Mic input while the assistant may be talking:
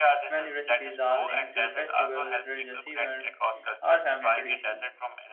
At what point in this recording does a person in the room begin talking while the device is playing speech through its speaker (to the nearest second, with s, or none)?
0 s